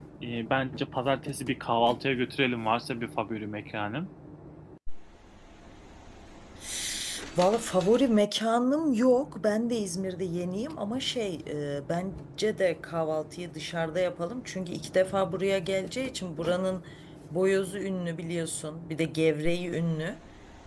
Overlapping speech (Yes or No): No